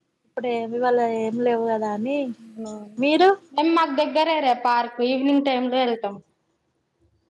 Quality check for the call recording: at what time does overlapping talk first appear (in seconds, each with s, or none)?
none